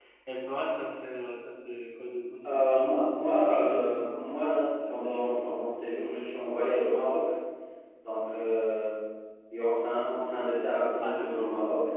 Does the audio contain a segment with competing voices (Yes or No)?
Yes